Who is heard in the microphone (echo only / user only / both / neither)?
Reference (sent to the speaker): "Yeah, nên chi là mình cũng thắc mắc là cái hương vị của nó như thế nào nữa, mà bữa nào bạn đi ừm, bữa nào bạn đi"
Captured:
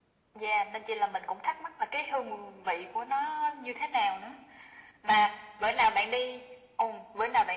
echo only